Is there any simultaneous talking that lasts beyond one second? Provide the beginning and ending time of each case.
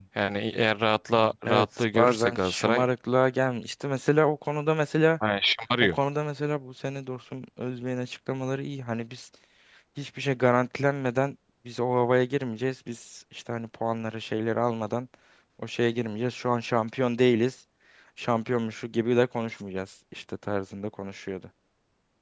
1.5-2.8

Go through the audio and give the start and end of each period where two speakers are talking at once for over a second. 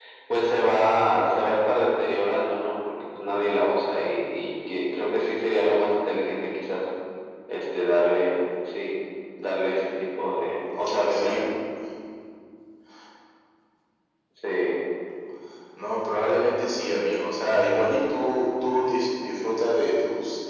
none

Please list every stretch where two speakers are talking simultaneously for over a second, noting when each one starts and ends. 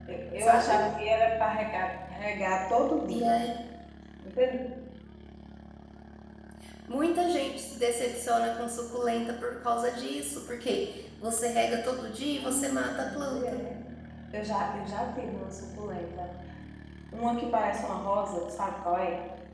12.4-13.6

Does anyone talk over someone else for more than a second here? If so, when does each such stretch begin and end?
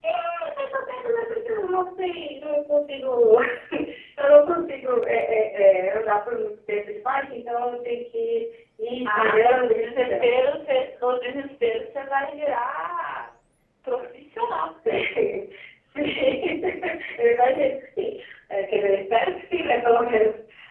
9.0-10.3

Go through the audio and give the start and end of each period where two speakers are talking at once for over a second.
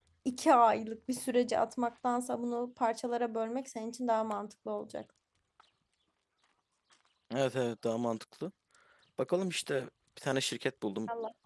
none

